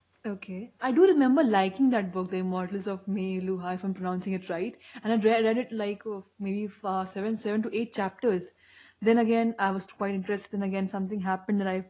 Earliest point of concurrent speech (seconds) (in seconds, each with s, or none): none